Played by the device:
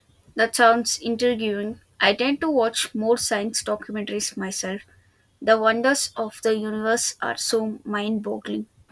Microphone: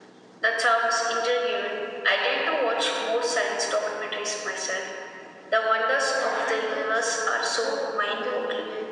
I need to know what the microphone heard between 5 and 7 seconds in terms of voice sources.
both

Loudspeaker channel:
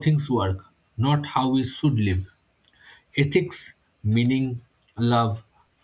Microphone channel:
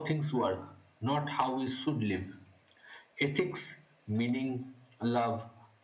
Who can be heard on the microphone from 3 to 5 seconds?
echo only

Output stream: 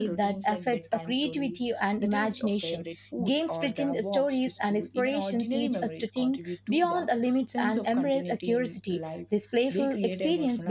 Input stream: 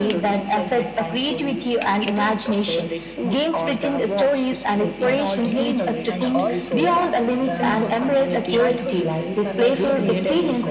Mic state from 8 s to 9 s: both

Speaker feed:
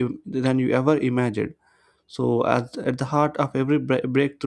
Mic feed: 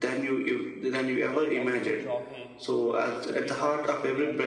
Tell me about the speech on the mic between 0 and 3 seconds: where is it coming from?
both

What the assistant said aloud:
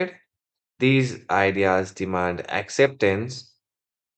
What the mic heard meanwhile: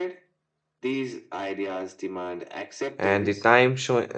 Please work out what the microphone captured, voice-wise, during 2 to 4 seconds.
both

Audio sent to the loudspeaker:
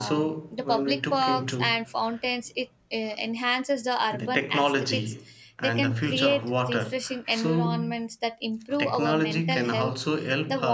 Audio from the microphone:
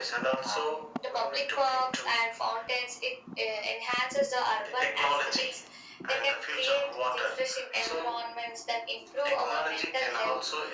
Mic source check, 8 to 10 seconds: echo only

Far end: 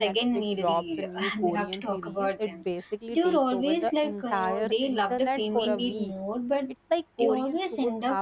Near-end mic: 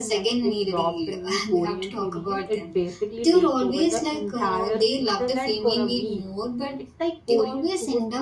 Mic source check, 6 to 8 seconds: echo only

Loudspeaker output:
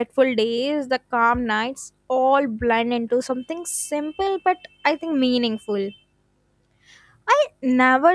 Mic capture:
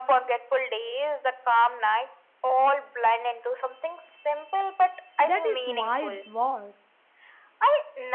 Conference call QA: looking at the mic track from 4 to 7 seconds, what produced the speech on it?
both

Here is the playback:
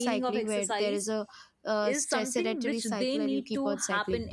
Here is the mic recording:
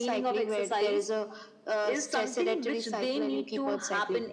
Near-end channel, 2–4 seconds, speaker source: echo only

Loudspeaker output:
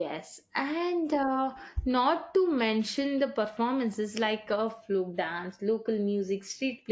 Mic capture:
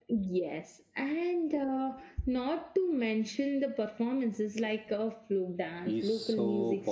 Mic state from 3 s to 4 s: echo only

